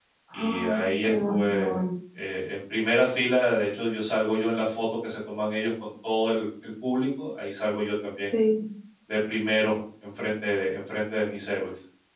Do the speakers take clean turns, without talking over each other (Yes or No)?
No